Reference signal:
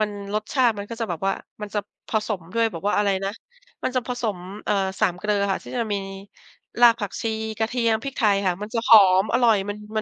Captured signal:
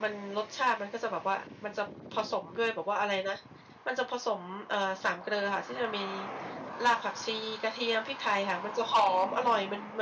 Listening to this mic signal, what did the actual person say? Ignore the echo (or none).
none